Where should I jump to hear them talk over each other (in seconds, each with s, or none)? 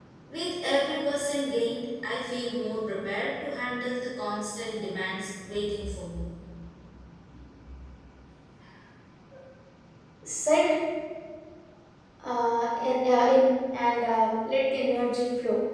none